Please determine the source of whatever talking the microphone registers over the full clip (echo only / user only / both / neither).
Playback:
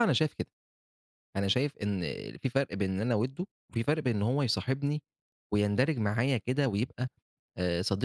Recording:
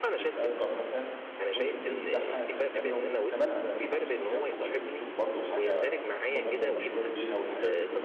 both